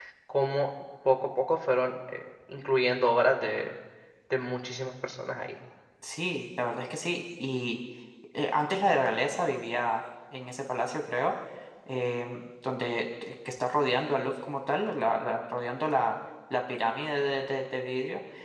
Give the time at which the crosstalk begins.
none

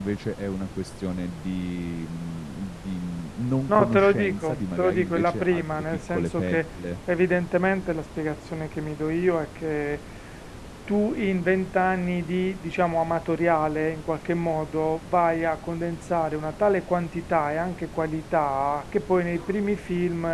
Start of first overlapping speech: 3.7 s

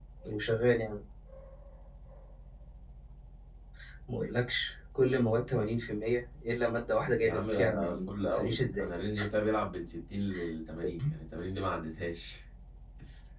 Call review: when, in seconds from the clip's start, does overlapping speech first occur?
7.2 s

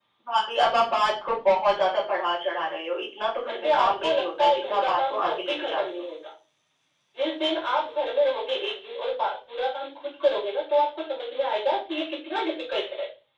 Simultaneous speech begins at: 3.5 s

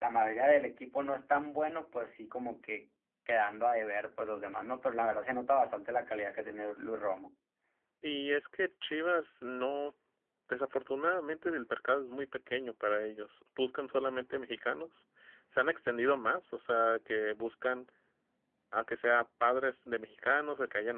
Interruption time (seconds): none

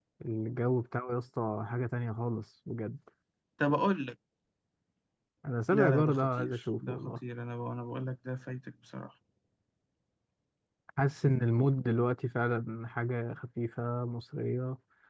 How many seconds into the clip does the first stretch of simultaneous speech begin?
5.7 s

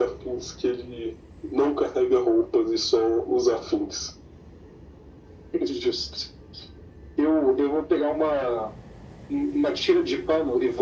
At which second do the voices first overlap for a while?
none

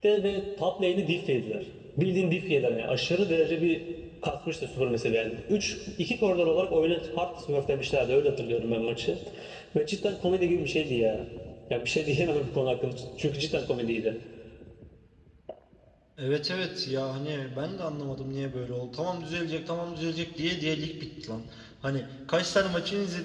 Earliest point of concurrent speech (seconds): none

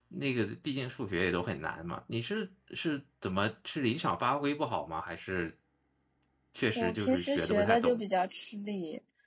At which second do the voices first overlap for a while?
6.8 s

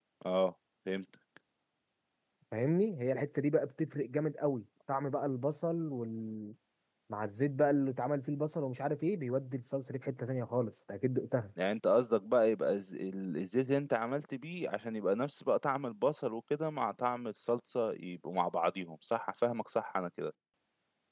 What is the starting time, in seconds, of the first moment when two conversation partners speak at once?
none

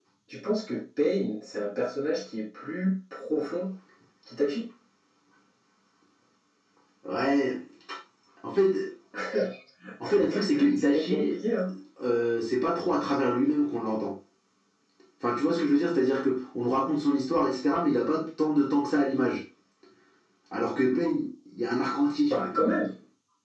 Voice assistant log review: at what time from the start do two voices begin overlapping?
10.0 s

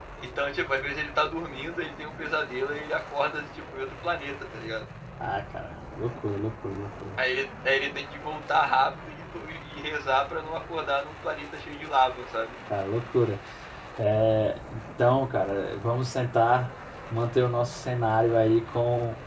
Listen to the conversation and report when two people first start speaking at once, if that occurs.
none

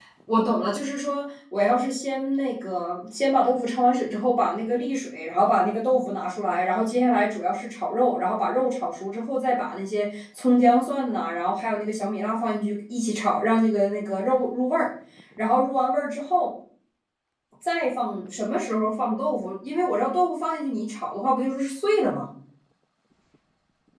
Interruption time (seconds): none

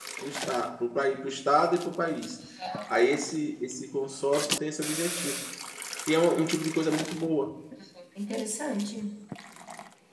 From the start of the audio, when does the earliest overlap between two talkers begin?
none

